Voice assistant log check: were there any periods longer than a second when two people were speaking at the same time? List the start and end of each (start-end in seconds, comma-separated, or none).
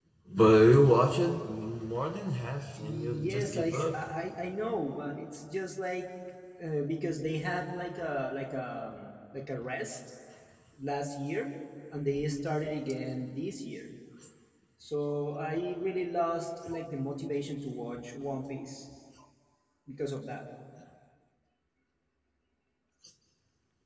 2.8-4.1